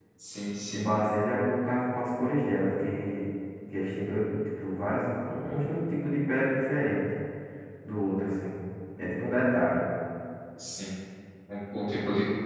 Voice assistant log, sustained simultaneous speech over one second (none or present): none